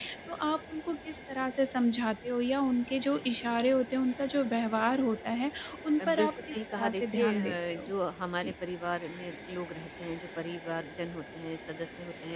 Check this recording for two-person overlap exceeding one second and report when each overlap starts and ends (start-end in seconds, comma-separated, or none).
6.0-7.9